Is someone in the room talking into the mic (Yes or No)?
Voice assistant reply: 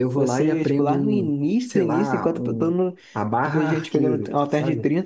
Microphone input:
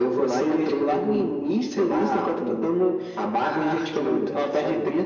No